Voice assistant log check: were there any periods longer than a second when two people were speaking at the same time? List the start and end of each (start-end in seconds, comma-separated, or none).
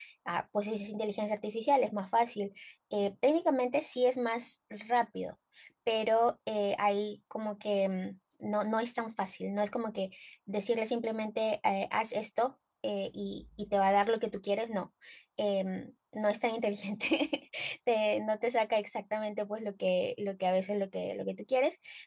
none